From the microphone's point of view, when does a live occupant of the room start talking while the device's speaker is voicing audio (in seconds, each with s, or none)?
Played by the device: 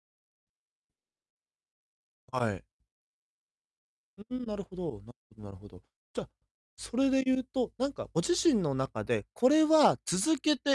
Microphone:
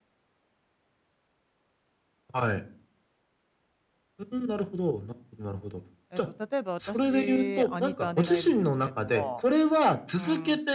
6.1 s